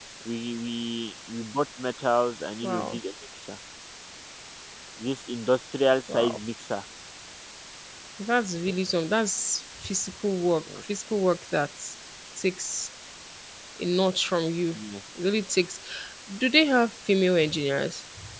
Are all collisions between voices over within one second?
Yes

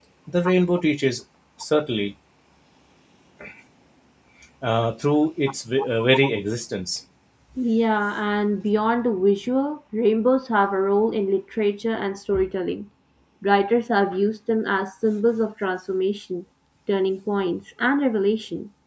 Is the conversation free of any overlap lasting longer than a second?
Yes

